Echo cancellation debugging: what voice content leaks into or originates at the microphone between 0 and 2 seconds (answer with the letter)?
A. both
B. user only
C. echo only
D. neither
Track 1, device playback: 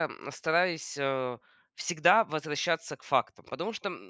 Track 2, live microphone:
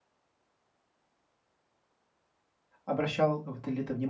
D